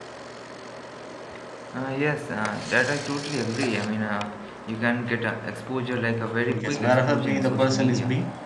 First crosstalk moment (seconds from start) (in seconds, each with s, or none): 6.5 s